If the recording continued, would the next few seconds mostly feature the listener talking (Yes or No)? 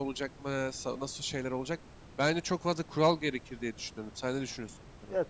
Yes